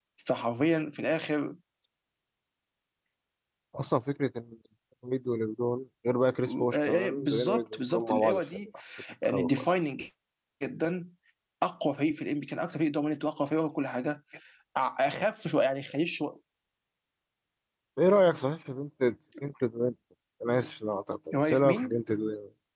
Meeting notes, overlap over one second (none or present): present